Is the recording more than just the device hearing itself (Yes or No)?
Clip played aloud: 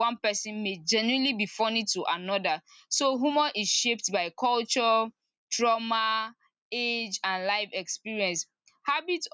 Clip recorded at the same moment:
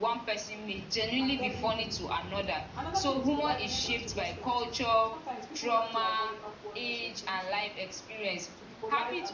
Yes